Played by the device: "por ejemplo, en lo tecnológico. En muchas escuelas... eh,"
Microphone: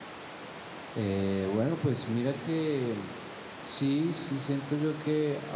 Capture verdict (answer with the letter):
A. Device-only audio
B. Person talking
B